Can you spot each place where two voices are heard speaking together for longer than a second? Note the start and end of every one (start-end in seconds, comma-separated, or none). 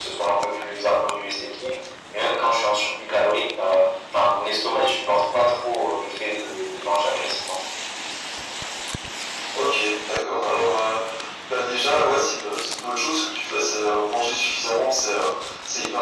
none